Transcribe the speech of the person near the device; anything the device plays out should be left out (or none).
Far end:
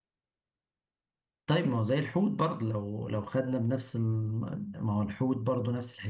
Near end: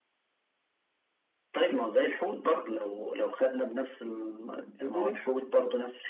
إيفرست